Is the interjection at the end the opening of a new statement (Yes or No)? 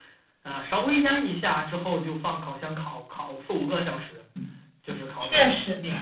Yes